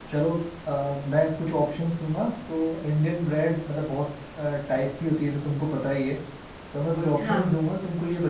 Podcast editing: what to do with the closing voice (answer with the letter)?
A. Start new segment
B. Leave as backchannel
B